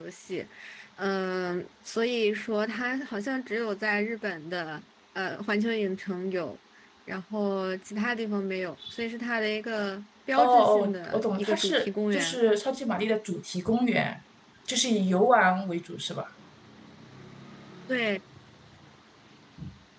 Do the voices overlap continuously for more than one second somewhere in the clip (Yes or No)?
Yes